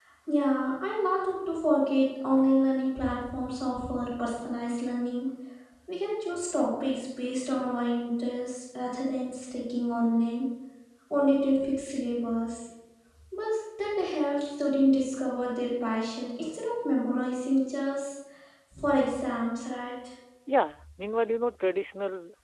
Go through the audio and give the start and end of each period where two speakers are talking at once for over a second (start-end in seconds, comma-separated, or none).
none